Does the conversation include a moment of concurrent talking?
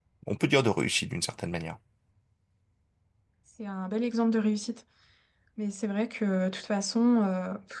No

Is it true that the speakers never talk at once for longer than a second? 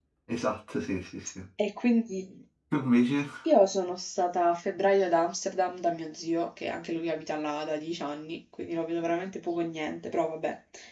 Yes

